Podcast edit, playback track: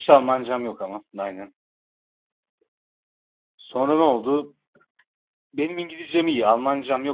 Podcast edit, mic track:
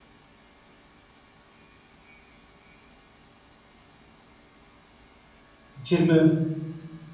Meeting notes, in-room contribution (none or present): present